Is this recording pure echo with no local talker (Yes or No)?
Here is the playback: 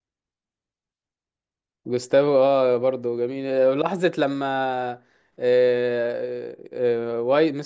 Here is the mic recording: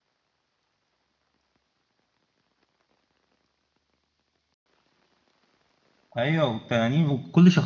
No